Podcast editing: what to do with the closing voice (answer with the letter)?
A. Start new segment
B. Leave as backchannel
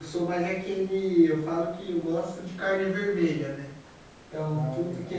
B